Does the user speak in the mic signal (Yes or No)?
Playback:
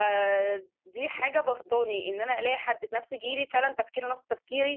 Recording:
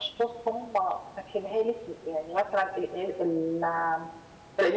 Yes